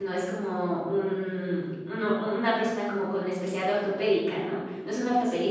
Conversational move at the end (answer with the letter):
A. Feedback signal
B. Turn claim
A